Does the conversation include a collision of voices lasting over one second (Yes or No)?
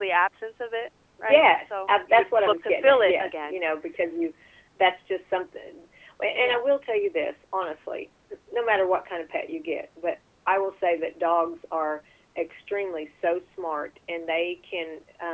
Yes